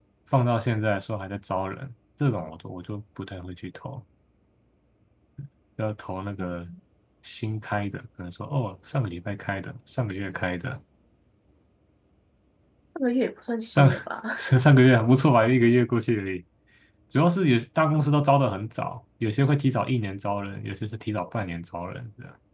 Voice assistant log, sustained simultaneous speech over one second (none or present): none